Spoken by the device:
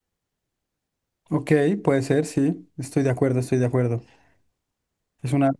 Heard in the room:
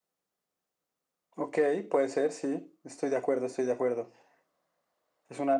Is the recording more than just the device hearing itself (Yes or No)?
No